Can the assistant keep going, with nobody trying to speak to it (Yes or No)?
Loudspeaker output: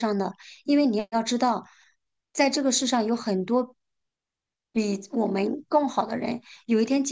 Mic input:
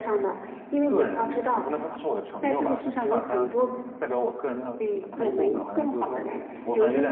No